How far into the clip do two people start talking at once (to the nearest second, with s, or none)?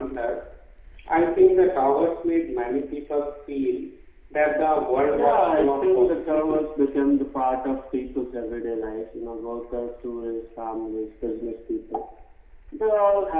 5 s